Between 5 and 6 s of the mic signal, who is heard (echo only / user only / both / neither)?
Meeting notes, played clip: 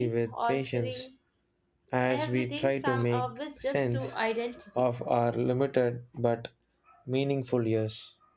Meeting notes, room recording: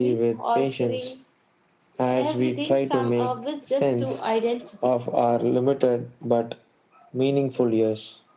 echo only